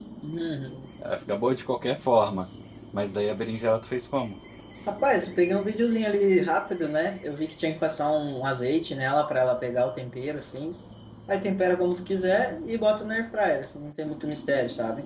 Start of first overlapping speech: none

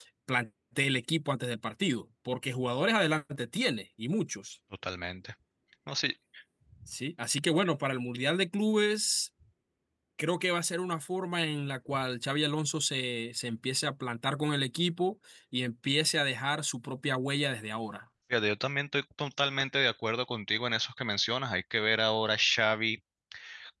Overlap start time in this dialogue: none

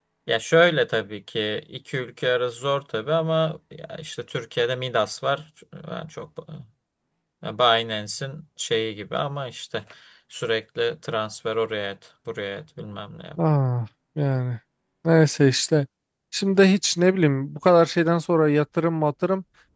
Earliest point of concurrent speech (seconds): none

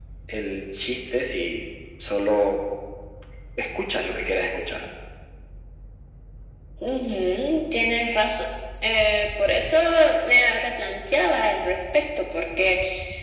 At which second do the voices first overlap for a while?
none

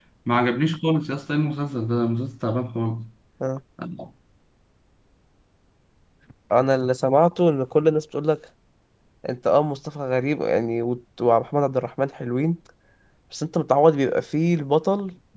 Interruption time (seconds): none

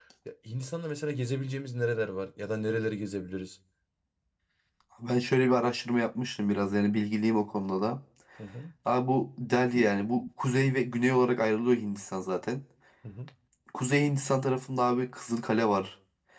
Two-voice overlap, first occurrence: none

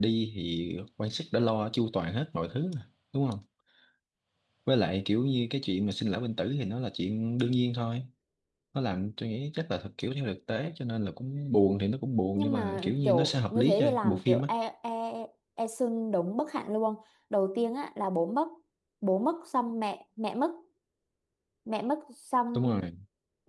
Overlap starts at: 12.3 s

